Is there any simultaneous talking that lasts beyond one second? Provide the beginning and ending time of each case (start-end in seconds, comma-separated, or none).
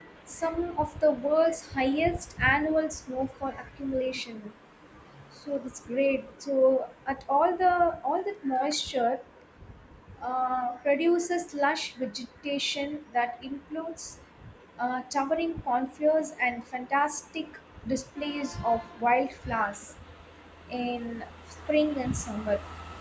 none